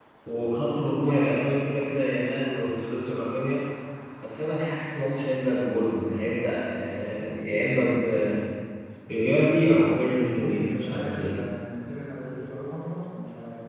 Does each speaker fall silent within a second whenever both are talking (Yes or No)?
No